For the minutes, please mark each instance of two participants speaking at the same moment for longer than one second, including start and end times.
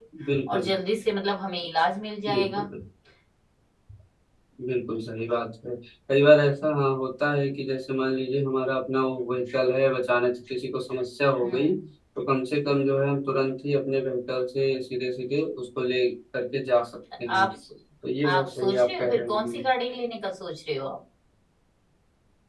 18.2-19.6

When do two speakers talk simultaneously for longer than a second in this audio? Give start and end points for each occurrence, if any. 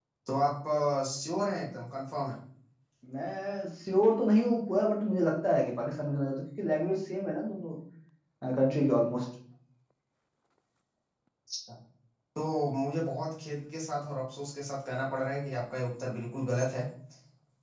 none

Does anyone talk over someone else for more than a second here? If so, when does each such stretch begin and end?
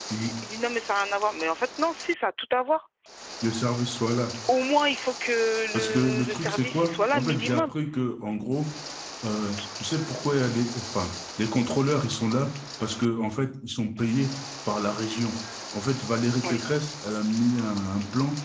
5.7-7.7

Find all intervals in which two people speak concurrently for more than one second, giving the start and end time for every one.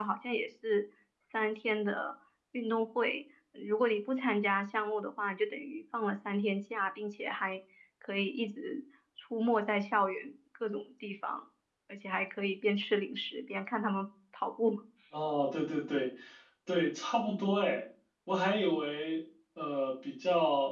none

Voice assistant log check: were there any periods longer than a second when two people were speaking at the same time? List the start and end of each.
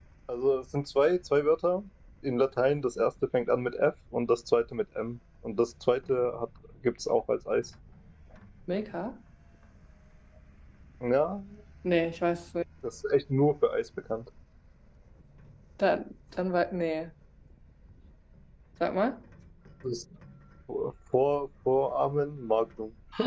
none

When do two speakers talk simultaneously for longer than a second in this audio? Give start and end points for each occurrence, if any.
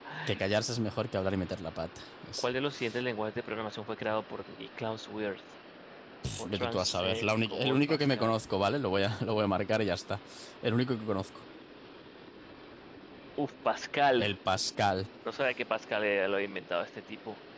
6.5-8.3

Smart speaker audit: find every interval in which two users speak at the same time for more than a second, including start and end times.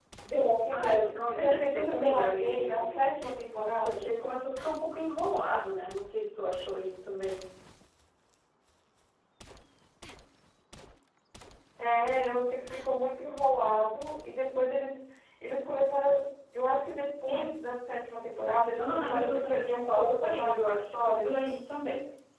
0.7-3.3, 18.8-21.3

